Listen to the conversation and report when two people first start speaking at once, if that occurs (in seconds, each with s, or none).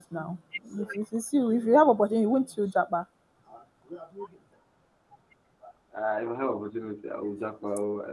none